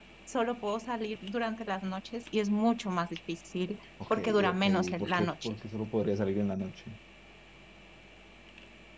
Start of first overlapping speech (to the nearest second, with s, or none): 4 s